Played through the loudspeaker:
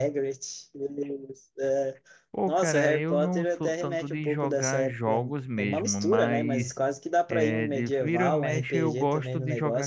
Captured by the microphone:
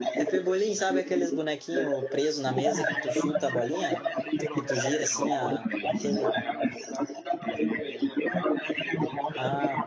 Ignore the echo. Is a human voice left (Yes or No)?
Yes